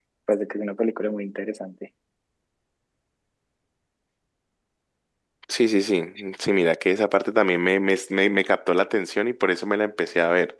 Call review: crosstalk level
none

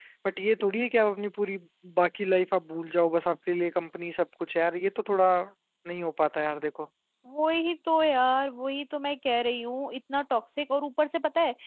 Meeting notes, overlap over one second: none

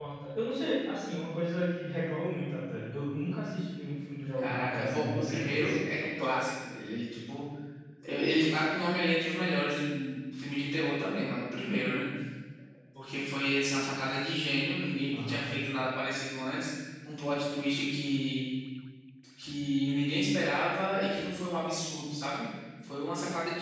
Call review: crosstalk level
present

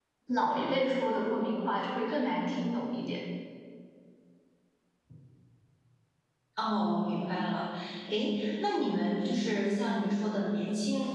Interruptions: none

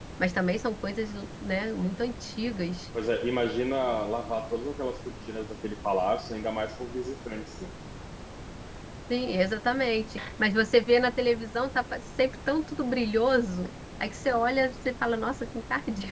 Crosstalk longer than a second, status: none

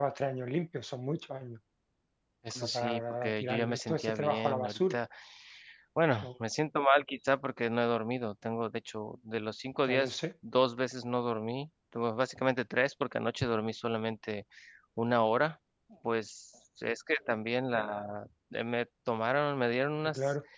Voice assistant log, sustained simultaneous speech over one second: present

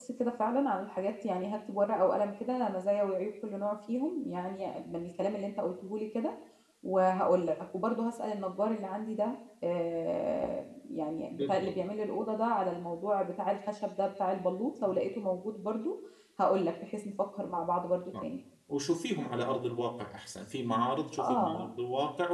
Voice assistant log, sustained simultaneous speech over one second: none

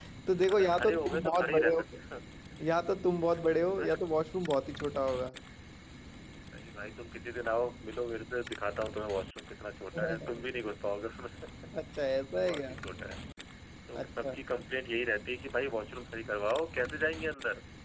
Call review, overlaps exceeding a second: present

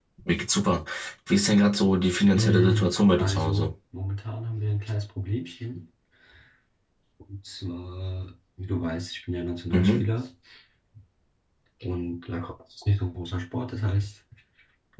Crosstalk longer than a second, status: present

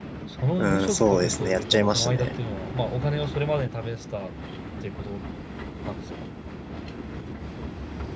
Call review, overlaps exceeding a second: present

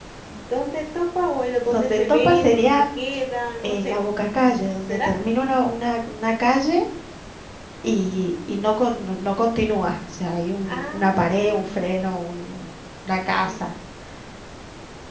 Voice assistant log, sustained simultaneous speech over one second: present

